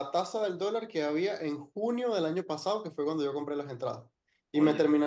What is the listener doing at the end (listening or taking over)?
listening